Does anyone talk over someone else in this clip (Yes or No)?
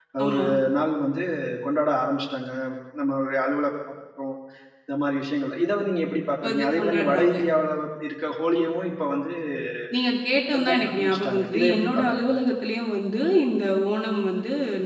Yes